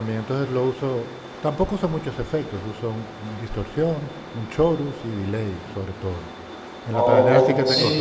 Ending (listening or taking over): taking over